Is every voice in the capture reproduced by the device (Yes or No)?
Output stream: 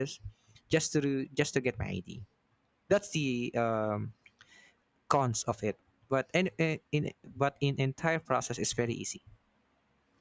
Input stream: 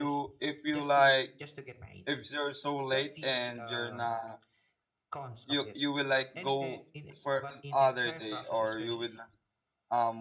No